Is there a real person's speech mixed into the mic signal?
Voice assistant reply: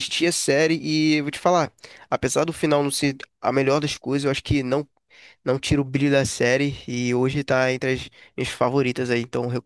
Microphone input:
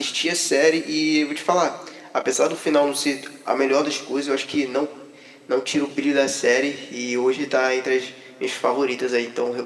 No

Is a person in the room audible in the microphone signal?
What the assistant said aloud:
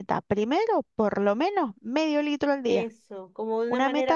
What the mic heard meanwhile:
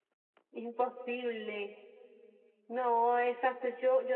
Yes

